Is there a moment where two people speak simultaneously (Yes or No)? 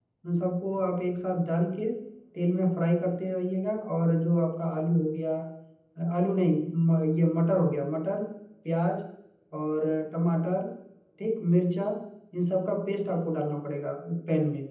No